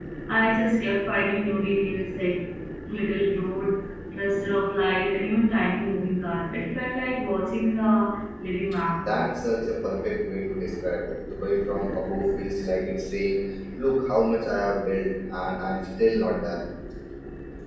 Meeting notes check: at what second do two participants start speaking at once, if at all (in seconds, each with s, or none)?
none